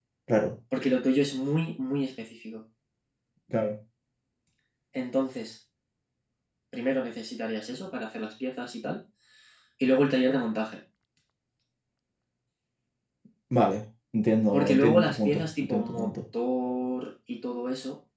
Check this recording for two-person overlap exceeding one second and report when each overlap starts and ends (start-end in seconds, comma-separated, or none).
14.5-16.1